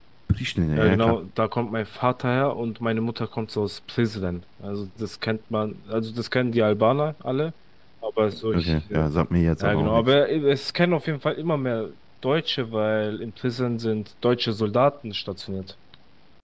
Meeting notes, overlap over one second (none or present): none